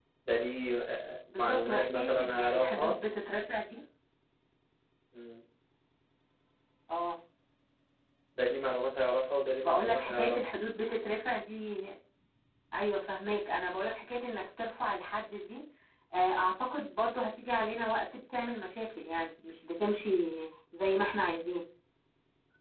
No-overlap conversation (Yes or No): No